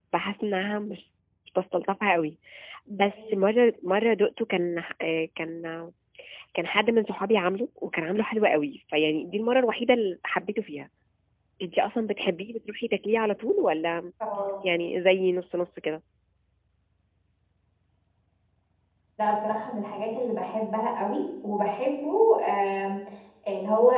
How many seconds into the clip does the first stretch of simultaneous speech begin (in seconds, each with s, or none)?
none